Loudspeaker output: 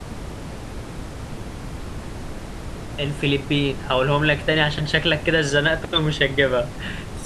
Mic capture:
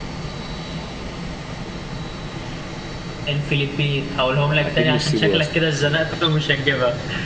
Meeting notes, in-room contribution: present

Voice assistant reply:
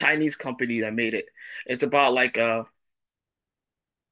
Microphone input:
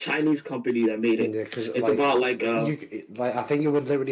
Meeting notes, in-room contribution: present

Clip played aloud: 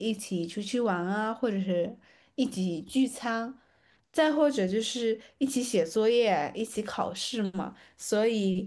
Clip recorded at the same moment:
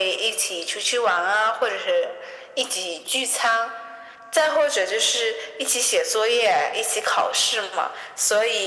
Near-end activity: none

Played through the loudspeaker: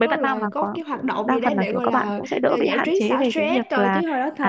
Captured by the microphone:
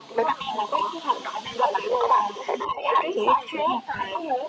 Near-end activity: none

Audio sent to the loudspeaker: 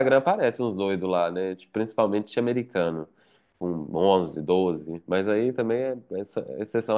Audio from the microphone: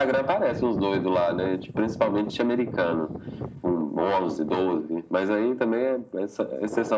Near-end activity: none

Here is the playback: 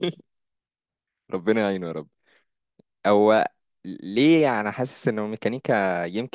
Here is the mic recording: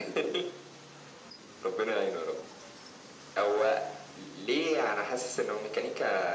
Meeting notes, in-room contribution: none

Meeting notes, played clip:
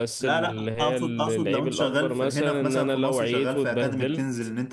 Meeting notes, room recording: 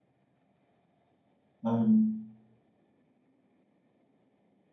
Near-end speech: present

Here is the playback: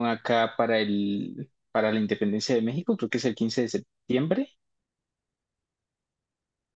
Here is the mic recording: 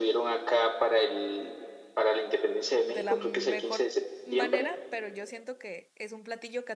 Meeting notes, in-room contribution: present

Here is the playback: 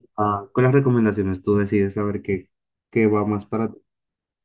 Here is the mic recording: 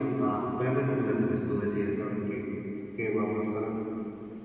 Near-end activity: none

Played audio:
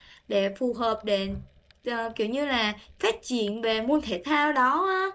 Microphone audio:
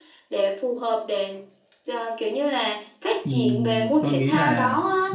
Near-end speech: present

